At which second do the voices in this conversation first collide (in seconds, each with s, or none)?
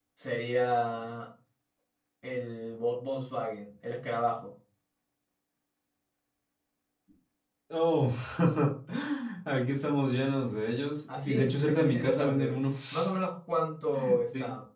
11.1 s